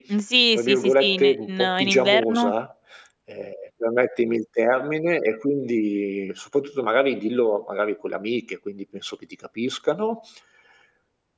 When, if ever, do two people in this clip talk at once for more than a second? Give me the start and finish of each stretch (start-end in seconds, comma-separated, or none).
0.6-2.5